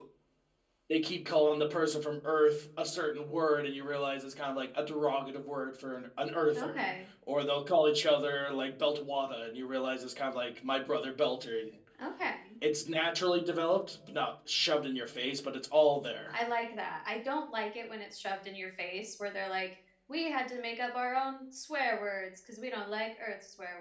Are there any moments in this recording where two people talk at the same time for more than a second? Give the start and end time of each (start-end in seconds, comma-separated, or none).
none